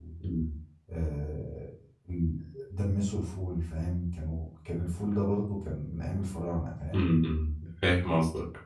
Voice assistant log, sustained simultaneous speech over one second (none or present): none